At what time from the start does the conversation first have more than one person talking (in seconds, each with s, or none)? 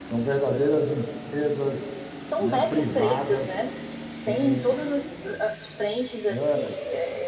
2.4 s